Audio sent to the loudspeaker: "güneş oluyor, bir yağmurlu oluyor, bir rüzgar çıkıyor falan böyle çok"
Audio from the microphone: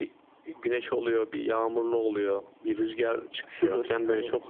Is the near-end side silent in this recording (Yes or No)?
No